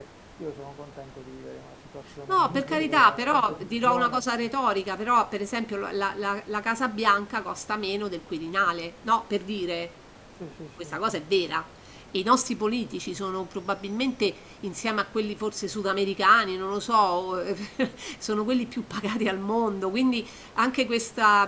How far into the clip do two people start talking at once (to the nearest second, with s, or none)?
2 s